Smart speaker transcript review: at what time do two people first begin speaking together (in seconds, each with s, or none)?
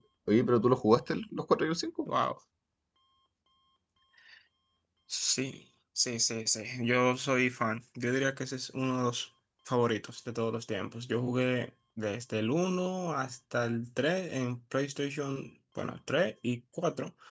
none